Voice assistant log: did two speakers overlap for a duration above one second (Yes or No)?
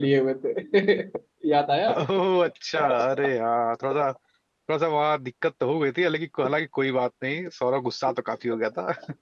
No